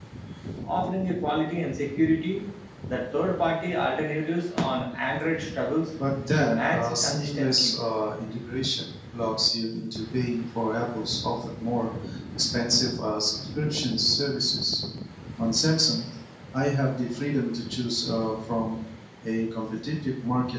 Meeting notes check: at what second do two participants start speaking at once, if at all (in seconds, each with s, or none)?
6.4 s